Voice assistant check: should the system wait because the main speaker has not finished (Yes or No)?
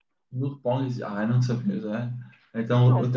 Yes